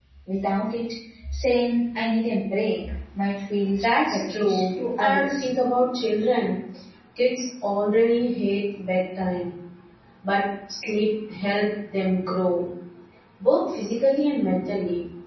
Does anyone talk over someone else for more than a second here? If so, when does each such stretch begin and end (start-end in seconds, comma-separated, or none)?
3.8-5.5